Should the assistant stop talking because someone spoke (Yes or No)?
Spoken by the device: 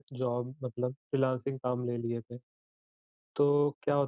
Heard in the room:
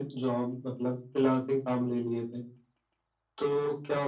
No